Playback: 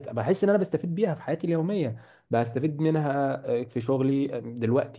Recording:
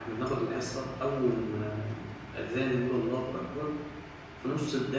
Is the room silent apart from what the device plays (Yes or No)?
No